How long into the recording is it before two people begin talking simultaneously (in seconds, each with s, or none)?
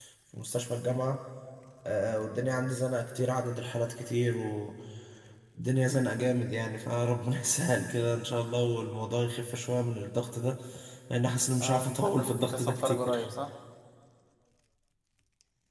11.6 s